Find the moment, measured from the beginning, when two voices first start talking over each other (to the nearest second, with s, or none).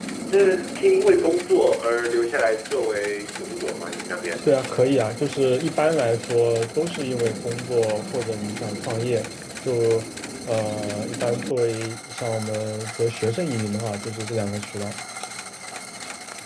none